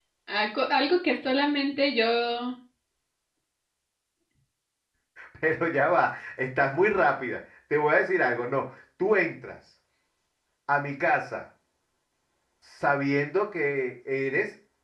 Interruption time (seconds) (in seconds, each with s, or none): none